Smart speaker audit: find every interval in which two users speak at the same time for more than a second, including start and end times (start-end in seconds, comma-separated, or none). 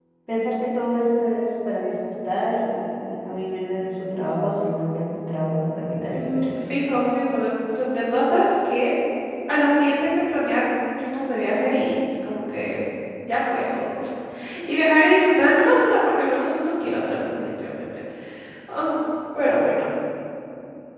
none